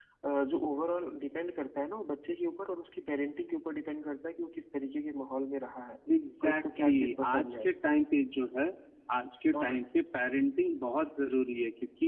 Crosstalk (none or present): present